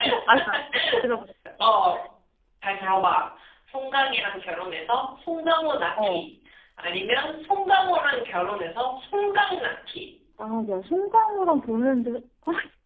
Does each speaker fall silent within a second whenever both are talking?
Yes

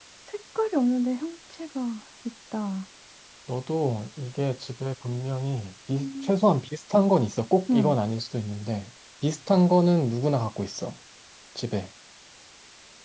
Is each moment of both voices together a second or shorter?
Yes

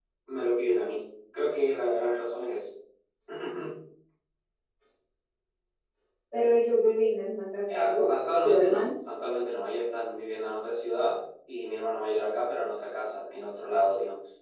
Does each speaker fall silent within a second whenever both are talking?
No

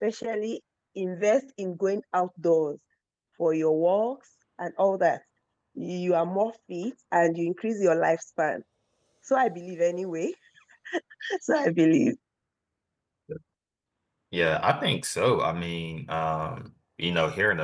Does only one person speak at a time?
Yes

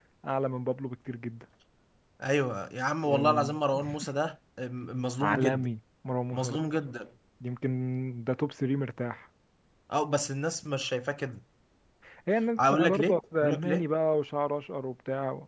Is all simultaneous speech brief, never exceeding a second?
No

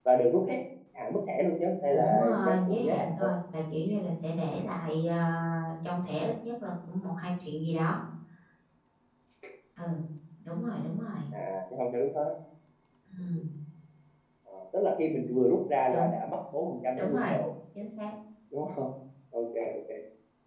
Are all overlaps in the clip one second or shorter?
No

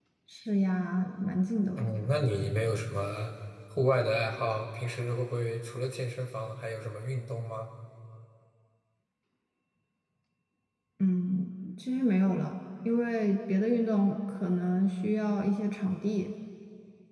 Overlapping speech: No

